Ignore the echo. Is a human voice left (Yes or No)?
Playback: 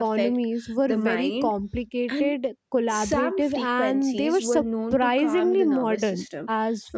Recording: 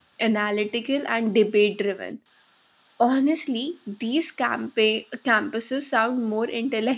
Yes